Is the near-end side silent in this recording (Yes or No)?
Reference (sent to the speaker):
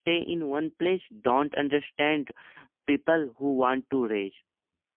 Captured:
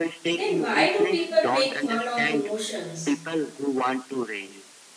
No